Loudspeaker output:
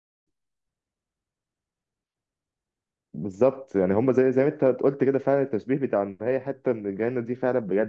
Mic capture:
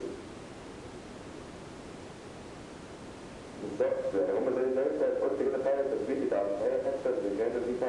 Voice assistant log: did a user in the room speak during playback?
No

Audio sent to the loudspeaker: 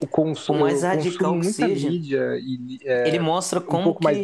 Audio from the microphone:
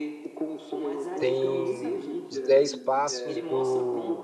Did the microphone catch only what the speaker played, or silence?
No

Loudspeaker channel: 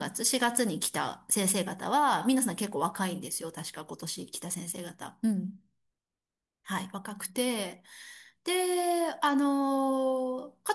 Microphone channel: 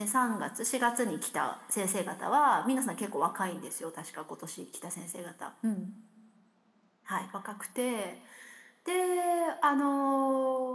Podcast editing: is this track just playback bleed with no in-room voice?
Yes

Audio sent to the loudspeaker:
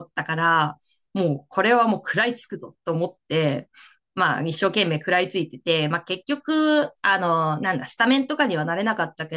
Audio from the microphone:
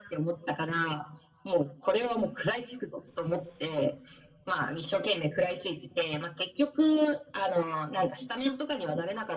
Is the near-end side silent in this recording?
Yes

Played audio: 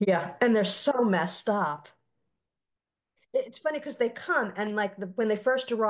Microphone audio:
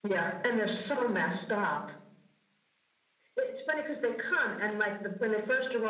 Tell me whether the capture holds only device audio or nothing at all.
Yes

